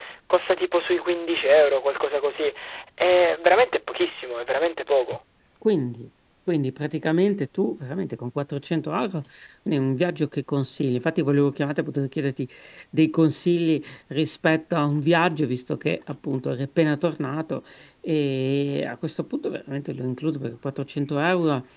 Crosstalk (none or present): none